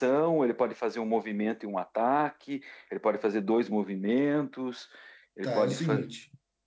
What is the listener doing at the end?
taking over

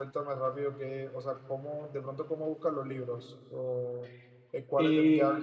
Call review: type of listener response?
listening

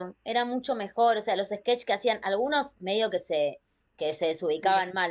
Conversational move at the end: listening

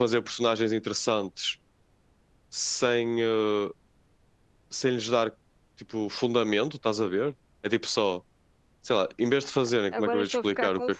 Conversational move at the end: taking over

